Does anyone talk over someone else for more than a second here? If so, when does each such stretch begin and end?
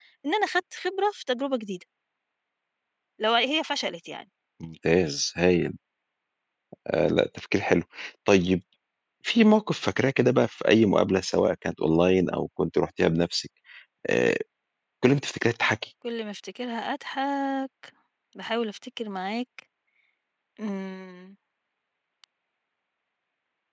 none

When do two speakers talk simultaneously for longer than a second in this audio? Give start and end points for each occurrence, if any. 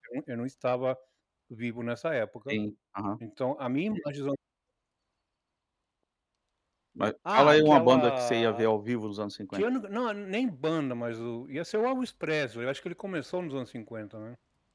7.3-8.7

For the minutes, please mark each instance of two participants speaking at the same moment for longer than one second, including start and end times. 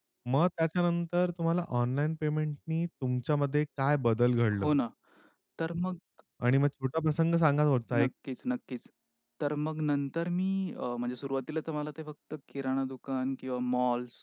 none

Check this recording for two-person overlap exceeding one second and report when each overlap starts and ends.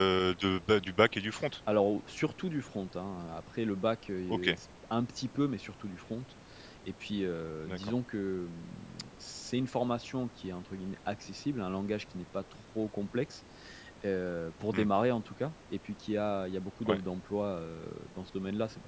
none

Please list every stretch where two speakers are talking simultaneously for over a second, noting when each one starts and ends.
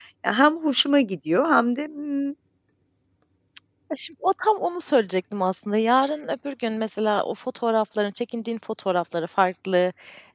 none

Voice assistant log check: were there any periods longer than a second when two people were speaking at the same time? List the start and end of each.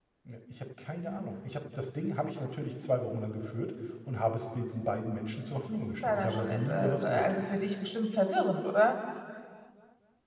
5.8-7.3

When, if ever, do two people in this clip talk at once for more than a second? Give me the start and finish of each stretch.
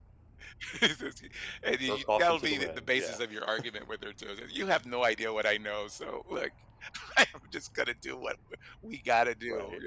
1.7-3.2

